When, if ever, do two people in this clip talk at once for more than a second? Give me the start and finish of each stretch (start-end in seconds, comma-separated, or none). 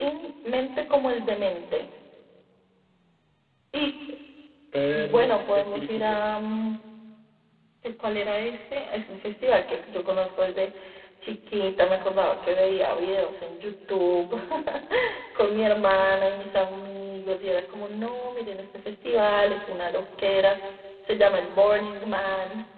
4.9-6.2